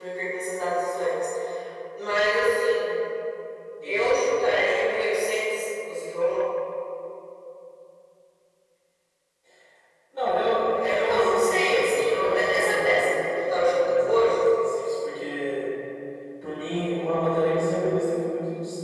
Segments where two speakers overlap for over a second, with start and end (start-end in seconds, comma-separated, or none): 10.7-14.4